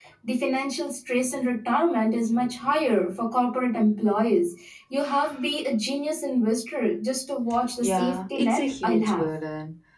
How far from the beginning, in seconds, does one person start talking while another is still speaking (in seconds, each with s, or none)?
7.8 s